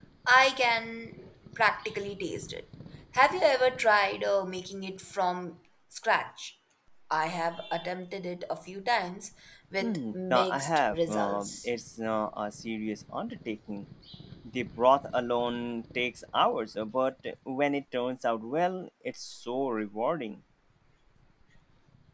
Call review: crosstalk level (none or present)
present